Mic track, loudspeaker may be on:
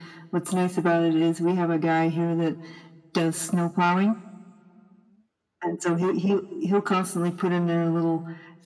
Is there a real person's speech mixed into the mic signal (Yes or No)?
No